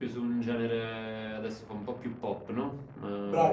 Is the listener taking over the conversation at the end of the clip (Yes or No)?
Yes